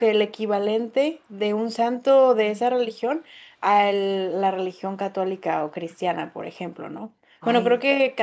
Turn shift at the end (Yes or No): No